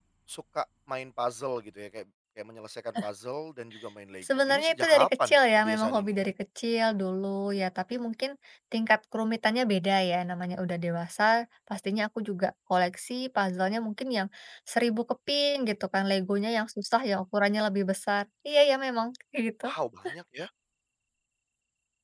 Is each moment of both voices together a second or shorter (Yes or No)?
No